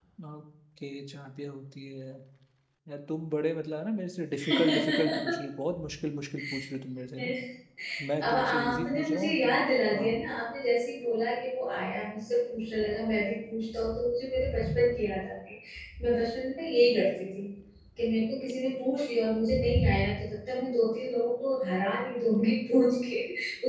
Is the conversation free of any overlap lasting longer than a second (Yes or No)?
No